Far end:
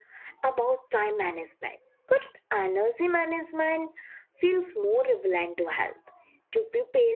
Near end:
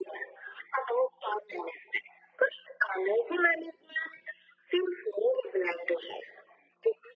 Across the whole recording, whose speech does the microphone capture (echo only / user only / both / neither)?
echo only